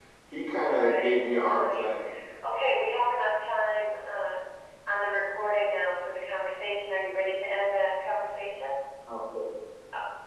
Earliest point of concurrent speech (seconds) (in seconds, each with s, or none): 0.6 s